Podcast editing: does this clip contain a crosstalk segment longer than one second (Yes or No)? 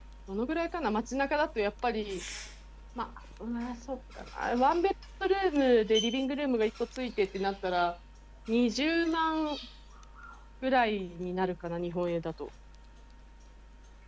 No